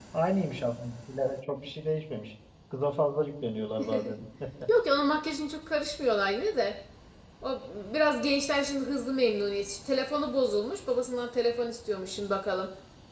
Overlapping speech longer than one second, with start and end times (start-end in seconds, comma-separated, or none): none